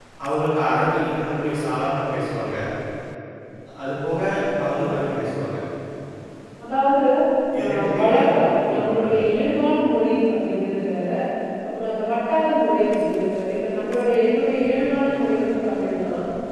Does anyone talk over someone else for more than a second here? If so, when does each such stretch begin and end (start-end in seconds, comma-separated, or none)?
7.6-9.2